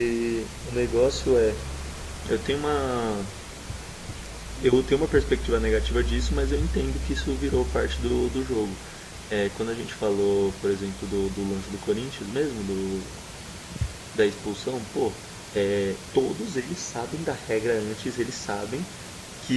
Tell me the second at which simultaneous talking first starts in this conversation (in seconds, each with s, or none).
none